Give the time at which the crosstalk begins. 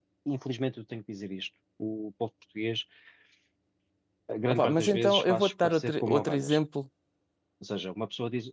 4.5 s

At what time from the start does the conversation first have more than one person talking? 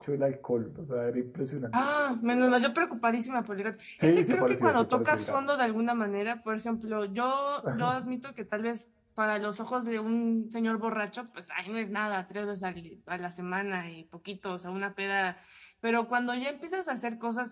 4.0 s

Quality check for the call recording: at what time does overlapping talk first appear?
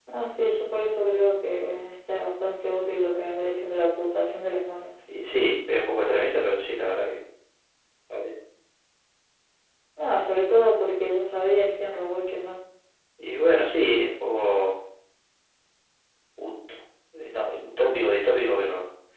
none

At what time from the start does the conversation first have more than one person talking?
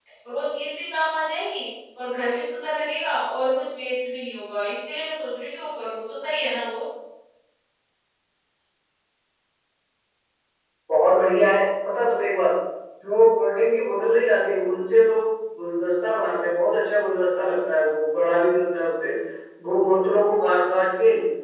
none

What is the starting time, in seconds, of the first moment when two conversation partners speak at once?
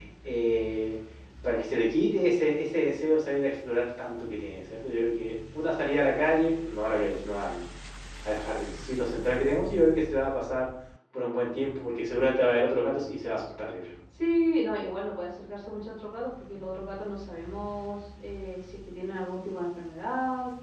none

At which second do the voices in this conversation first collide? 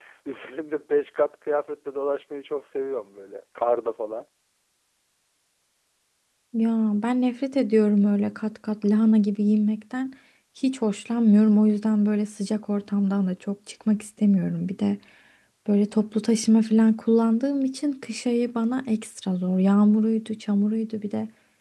none

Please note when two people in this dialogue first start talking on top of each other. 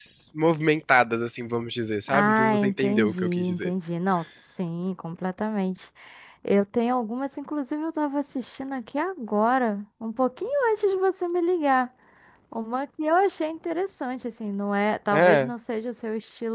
2.1 s

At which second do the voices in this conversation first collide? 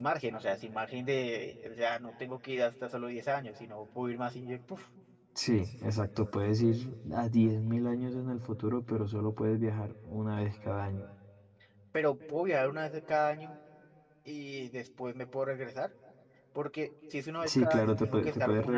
17.4 s

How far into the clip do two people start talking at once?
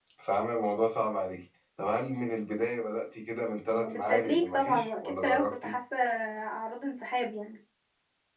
3.8 s

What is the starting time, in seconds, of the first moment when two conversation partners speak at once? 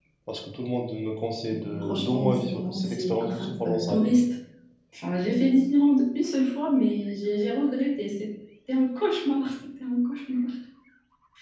1.5 s

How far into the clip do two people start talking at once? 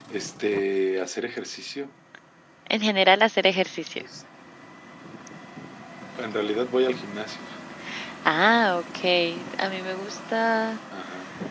none

